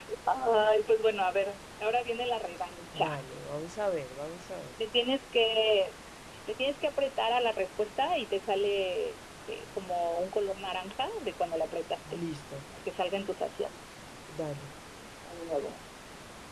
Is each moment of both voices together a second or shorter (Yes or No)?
Yes